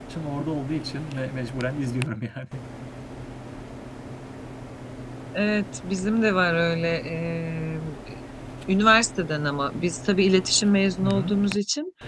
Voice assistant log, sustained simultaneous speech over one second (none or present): none